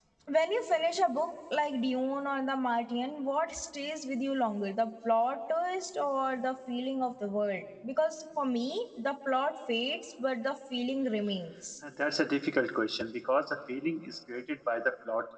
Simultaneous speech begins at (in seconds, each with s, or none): none